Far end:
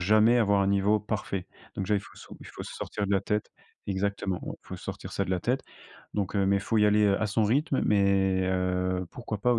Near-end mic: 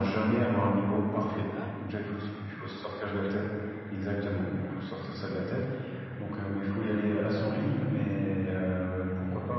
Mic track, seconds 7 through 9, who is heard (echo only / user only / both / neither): echo only